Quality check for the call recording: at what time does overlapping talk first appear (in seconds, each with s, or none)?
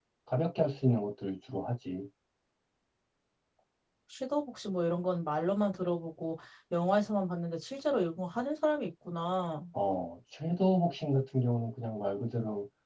none